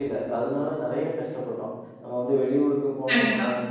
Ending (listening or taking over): listening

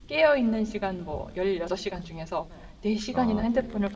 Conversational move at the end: listening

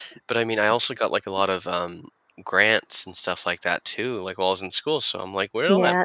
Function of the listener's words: taking over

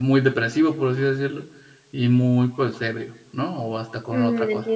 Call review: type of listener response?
taking over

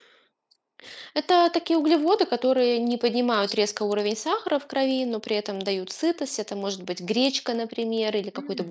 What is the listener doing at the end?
listening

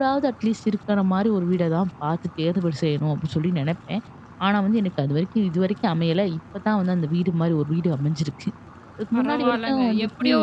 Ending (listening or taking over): taking over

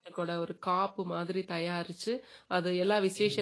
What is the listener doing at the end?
listening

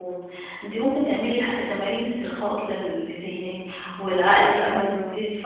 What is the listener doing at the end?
listening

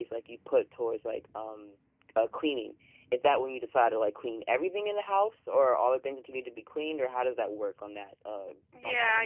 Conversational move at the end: taking over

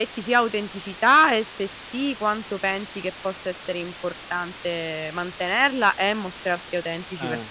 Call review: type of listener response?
taking over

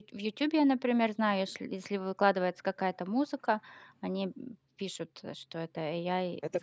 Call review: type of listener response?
taking over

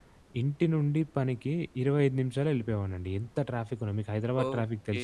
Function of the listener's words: taking over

